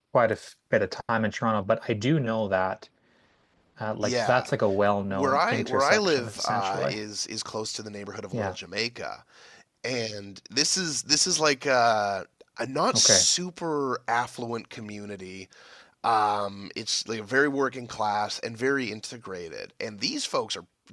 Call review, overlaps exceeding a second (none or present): present